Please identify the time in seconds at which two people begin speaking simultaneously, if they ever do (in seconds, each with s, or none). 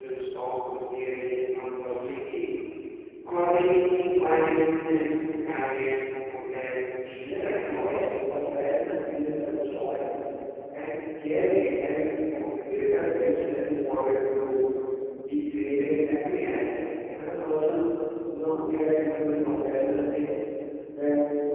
7.2 s